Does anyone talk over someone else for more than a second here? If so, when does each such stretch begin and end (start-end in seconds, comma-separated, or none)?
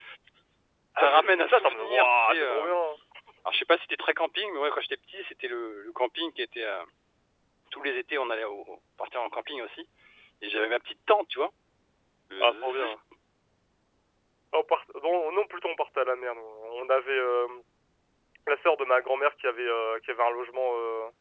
1.0-2.7